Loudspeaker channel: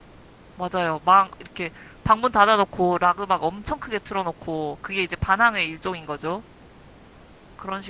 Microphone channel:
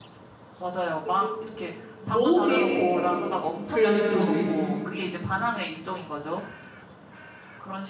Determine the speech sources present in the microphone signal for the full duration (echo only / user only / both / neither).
both